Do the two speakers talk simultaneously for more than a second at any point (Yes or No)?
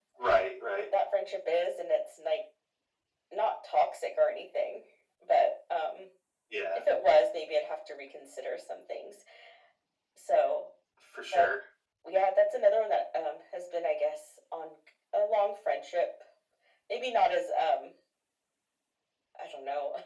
No